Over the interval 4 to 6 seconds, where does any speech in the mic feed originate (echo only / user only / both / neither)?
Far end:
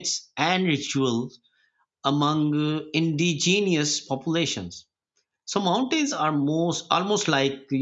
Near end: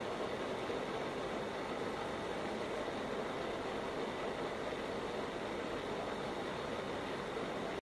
neither